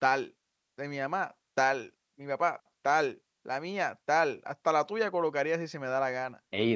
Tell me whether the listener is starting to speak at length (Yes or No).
No